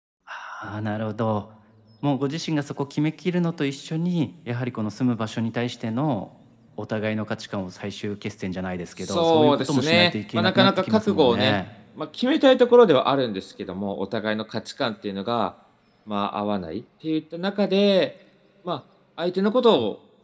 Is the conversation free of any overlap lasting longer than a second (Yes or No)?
No